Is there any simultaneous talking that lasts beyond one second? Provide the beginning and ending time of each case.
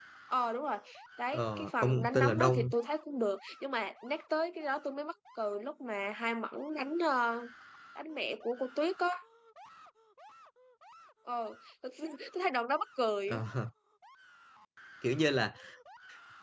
1.3-2.7

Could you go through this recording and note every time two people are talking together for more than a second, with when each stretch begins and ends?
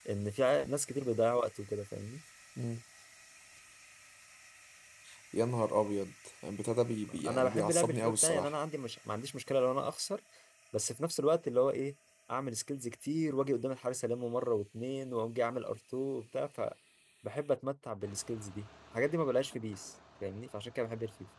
7.2-8.5

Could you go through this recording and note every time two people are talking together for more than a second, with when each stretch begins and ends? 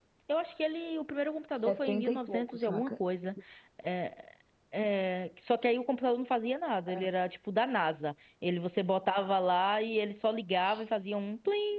1.6-2.9

